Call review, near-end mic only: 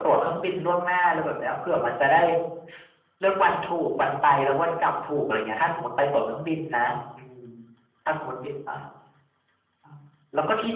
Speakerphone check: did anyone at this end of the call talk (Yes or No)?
No